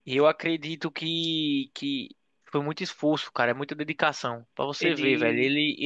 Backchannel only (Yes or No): Yes